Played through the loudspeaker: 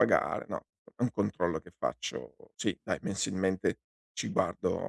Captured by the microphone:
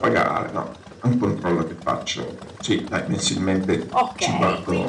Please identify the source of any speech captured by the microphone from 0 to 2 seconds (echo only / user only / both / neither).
echo only